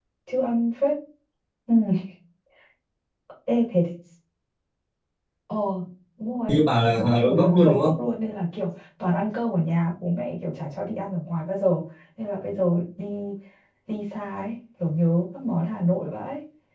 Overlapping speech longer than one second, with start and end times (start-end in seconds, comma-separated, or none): 6.5-7.9